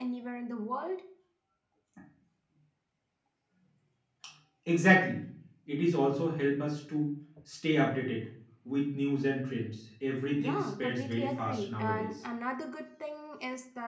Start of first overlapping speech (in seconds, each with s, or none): 10.4 s